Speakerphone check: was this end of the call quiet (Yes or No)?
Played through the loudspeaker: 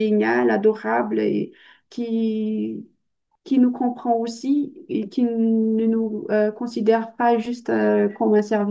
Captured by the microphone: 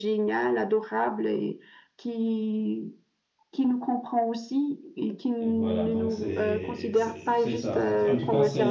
No